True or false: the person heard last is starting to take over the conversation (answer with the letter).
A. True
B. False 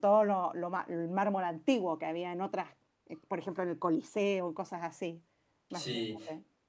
A